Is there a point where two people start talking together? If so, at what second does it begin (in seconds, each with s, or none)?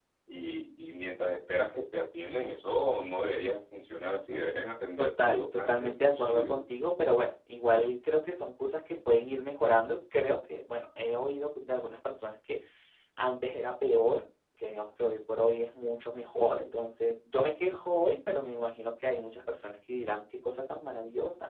5.0 s